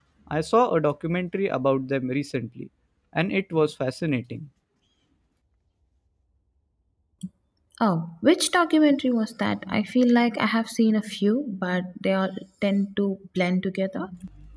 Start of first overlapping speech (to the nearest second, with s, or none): none